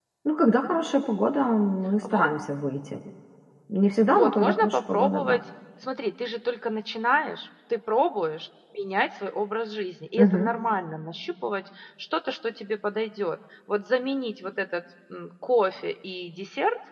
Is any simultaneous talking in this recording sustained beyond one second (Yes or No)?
Yes